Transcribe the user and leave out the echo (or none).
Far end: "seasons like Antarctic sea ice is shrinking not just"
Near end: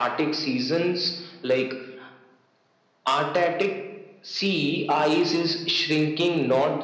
none